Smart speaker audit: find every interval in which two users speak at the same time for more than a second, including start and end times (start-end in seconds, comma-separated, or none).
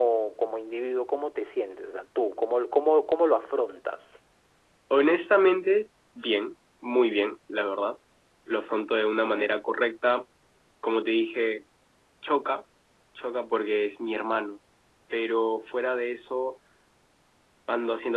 none